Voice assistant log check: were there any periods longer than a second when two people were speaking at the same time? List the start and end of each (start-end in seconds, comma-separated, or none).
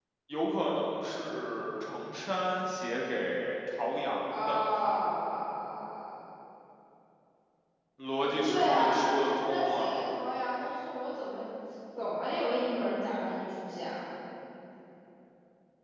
8.2-10.0